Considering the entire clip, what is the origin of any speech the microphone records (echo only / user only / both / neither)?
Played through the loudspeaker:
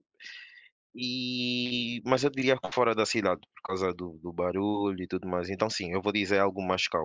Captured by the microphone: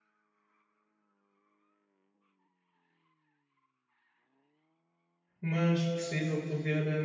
user only